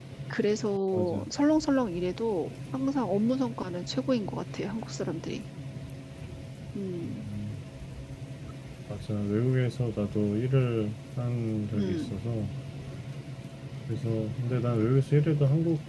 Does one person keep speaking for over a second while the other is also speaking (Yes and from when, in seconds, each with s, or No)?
No